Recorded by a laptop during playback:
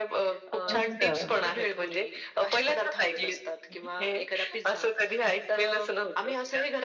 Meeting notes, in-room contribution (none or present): present